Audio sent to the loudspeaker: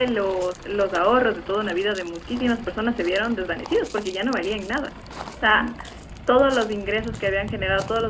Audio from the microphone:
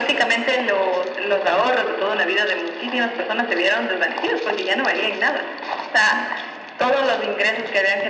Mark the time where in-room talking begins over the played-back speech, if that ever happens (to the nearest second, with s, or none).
none